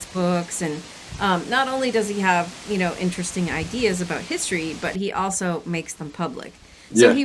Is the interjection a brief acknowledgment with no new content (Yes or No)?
Yes